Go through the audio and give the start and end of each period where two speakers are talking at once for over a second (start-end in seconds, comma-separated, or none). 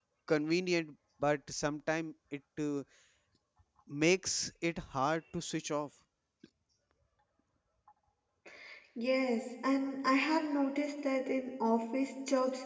none